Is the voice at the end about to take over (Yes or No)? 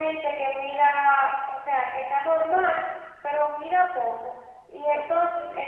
No